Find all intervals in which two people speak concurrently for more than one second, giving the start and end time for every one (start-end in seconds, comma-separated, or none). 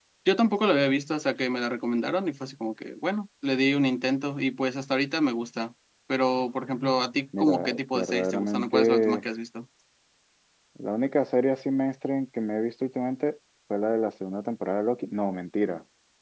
7.4-9.2